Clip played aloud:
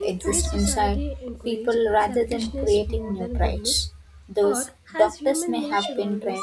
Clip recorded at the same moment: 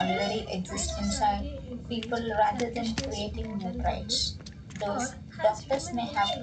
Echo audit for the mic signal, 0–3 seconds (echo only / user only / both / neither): echo only